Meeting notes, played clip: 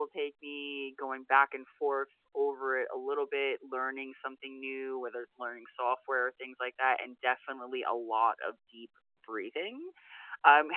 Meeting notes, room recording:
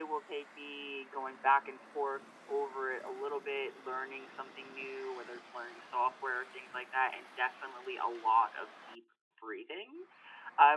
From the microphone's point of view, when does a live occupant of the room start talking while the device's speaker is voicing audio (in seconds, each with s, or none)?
none